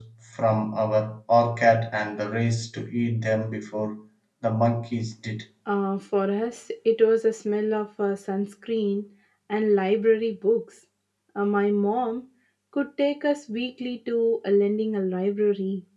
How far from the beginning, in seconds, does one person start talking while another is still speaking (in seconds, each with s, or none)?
none